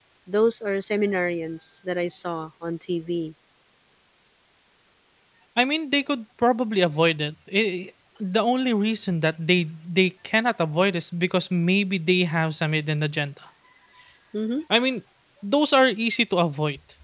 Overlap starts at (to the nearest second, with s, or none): none